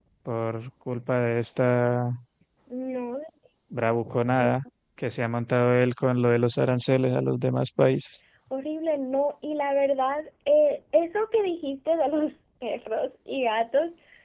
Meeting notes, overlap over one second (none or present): none